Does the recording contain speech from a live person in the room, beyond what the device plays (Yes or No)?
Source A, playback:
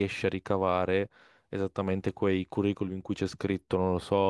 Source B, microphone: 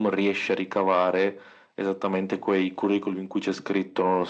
No